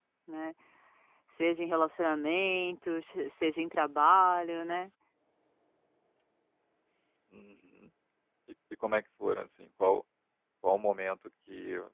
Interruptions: none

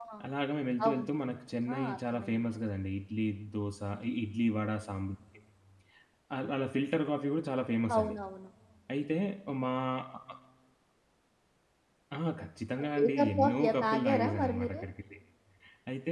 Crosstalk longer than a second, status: present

